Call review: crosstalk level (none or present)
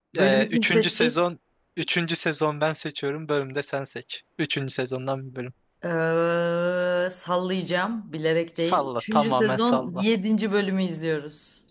present